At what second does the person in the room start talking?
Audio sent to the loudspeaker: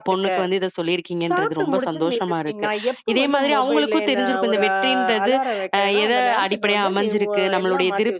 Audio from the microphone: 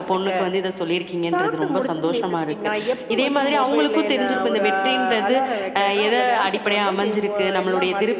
none

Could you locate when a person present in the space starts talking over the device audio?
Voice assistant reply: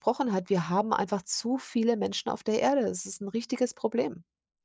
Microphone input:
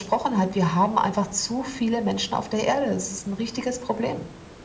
none

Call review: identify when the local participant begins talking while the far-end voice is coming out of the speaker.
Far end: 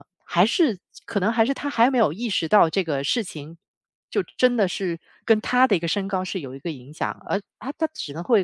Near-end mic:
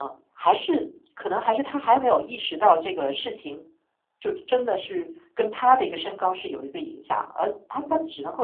none

